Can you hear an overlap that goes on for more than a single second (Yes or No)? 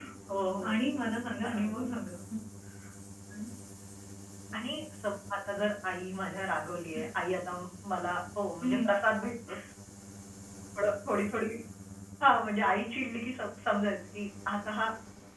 No